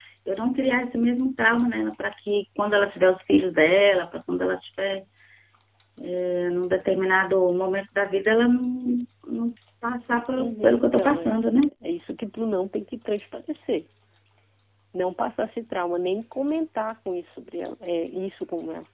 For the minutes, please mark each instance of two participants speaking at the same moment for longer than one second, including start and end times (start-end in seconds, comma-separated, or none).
10.4-11.6